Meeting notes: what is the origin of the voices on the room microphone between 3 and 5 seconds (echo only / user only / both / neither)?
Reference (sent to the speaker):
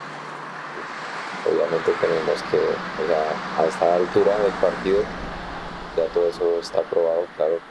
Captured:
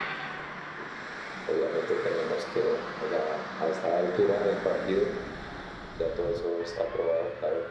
echo only